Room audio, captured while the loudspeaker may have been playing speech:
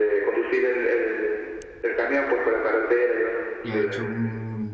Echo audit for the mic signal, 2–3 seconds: echo only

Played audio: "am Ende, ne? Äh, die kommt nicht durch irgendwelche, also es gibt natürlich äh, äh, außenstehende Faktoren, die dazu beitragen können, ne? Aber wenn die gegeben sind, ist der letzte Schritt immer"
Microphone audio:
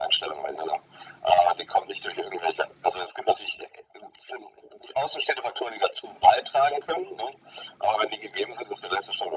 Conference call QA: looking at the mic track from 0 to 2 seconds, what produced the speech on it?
echo only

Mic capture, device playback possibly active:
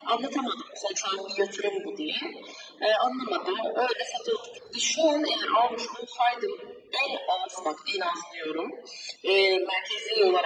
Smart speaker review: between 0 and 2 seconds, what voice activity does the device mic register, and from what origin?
echo only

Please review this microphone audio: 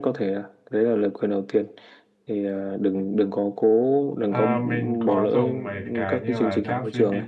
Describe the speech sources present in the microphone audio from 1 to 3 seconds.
echo only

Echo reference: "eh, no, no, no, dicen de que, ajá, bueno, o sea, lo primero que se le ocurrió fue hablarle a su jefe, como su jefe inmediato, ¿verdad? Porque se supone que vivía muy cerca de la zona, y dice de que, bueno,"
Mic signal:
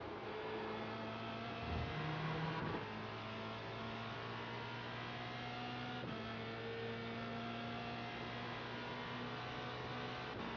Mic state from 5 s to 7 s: neither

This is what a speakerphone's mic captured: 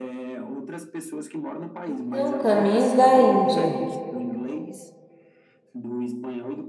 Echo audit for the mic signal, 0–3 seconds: both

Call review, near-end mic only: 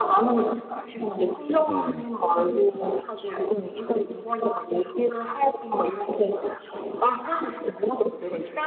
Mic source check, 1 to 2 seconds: both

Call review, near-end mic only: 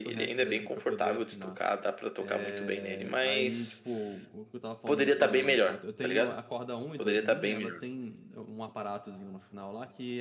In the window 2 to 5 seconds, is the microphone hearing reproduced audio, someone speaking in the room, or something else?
both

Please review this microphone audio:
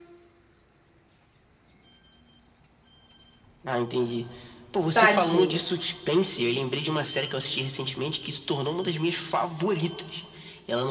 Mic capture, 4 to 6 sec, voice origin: both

